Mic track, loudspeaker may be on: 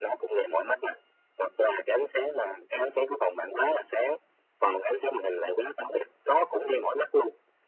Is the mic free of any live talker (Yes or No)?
Yes